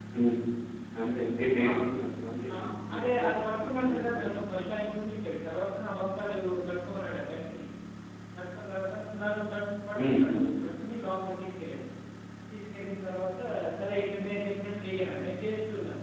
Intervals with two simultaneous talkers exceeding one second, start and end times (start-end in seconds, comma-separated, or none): 2.9-4.3